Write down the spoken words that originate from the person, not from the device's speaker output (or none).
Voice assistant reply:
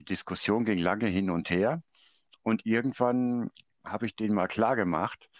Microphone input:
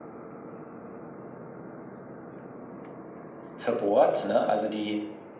verbohrt, ne? Also die